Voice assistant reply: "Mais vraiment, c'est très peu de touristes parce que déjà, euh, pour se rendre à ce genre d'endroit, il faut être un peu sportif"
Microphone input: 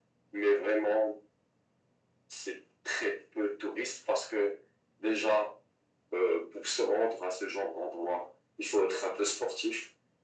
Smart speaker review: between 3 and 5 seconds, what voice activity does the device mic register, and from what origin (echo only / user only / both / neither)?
echo only